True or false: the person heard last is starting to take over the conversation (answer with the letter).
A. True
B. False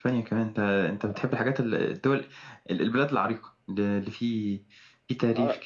A